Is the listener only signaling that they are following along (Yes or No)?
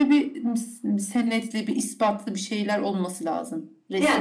No